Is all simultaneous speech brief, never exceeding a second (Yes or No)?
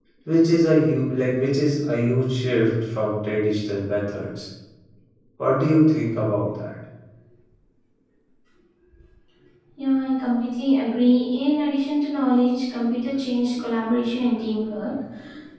Yes